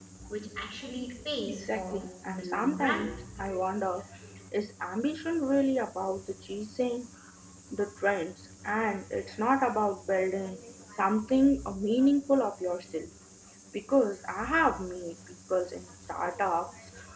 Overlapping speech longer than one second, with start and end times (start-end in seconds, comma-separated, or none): 1.5-3.0